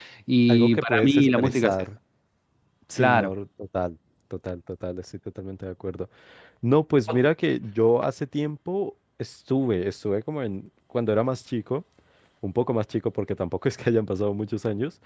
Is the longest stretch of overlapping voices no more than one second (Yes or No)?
No